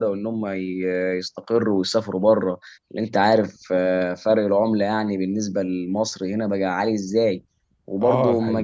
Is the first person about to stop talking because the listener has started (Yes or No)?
No